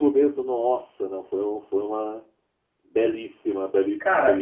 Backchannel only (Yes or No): No